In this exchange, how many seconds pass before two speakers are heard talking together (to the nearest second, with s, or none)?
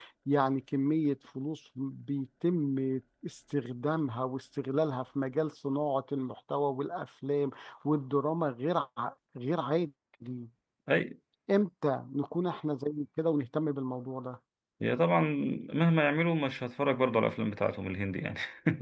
none